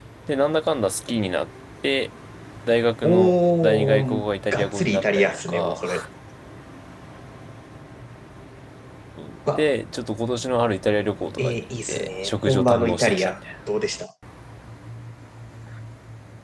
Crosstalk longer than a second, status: present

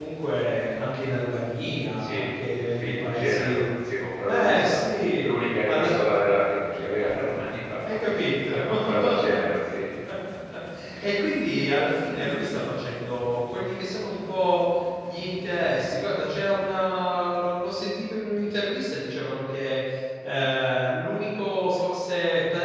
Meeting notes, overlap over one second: present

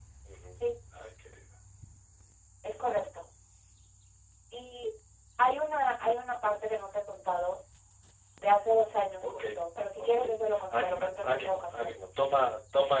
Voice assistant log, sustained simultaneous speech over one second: present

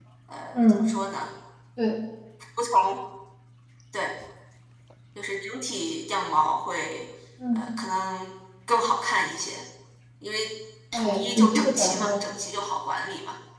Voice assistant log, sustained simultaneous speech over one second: present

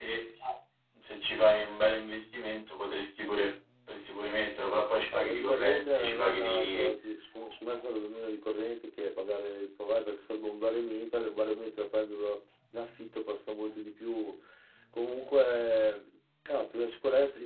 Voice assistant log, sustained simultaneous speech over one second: present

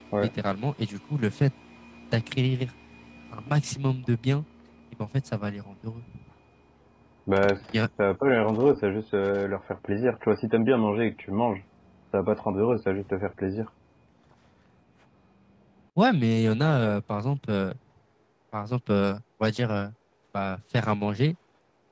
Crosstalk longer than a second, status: none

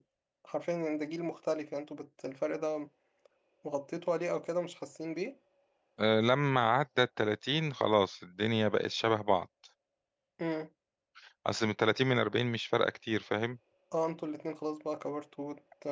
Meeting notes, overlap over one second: none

